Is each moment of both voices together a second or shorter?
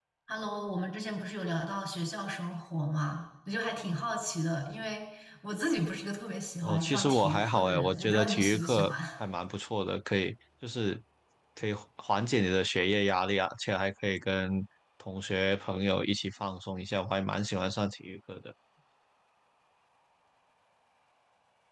No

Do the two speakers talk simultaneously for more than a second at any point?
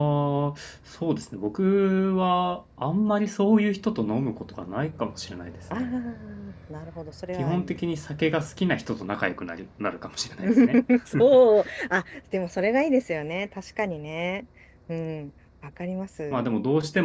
No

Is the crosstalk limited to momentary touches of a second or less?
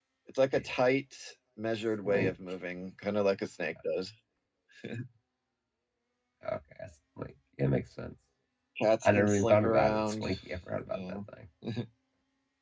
No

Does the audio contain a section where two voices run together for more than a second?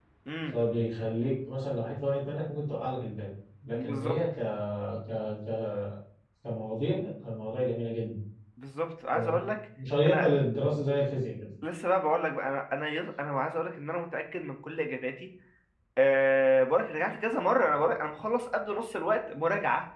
No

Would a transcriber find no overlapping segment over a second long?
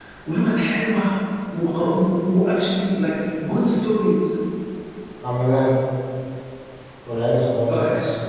Yes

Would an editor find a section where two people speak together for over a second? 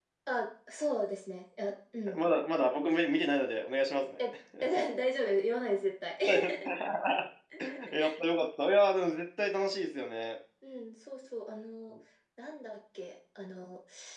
No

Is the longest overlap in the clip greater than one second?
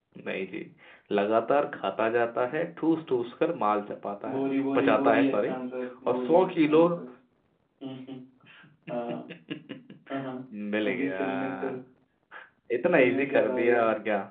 Yes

